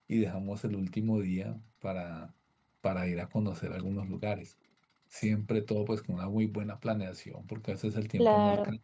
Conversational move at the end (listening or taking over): listening